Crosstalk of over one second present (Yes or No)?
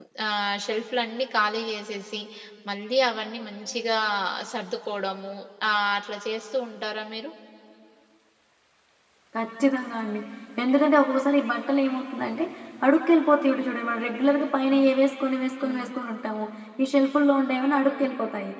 No